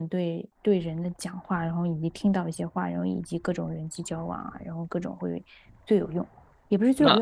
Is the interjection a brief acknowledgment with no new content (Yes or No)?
Yes